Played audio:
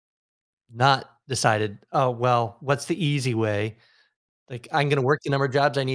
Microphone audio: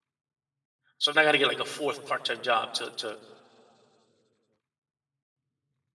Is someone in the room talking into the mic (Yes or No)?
Yes